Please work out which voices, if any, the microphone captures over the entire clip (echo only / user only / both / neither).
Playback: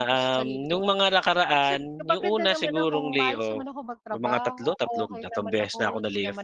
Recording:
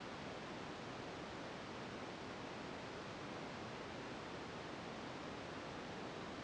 neither